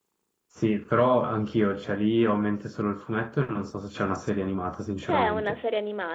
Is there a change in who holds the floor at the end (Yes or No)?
Yes